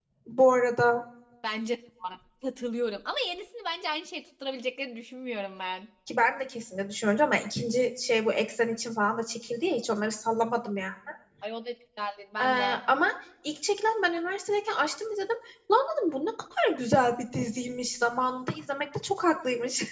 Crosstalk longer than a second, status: none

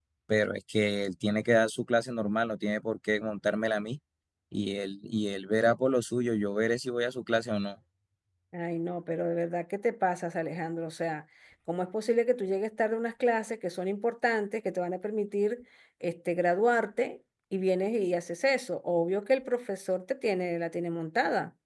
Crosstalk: none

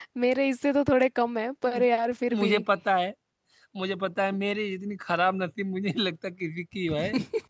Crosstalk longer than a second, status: none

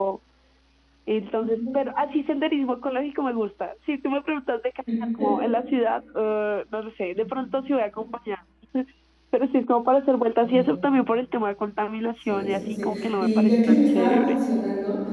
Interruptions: present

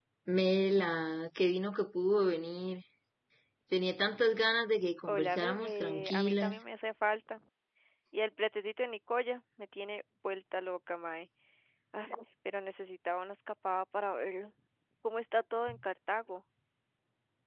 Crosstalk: present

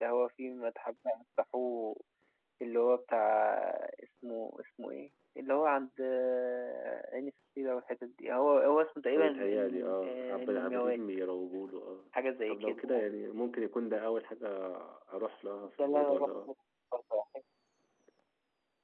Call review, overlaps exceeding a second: present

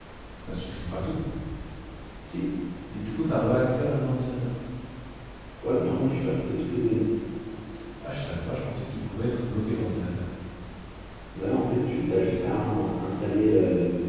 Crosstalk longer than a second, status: none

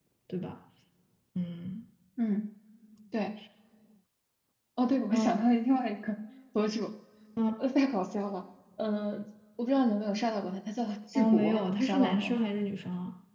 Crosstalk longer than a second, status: present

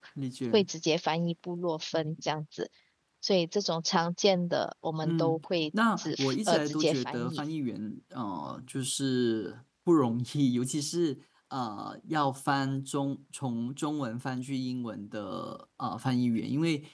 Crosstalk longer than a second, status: present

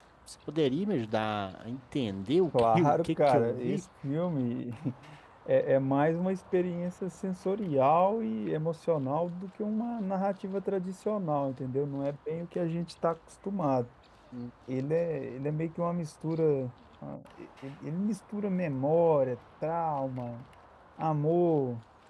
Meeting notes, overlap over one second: present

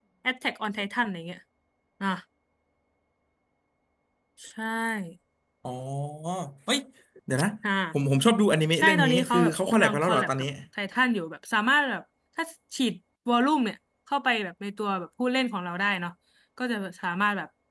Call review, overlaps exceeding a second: present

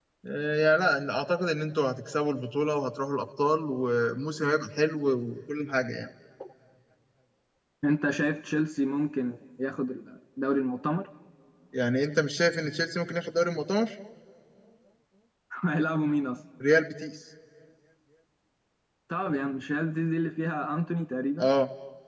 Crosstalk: none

